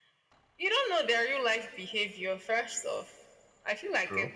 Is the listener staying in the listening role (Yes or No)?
Yes